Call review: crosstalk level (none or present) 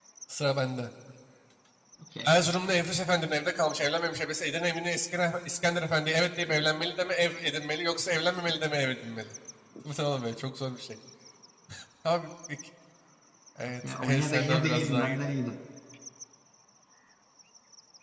present